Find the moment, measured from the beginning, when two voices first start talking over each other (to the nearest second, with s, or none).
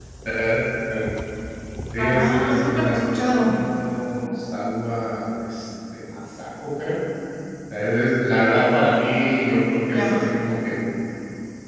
2 s